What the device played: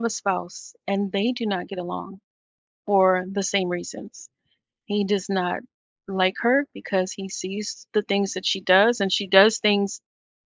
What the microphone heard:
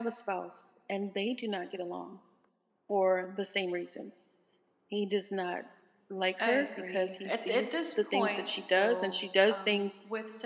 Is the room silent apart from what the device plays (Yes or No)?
No